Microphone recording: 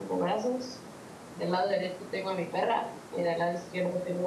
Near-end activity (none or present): present